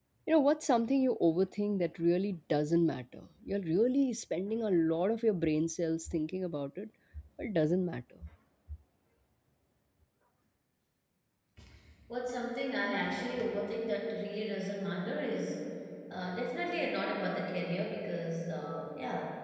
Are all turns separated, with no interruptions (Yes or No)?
Yes